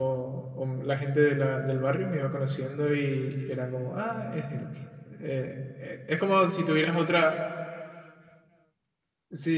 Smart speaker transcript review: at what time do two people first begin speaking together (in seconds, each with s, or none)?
none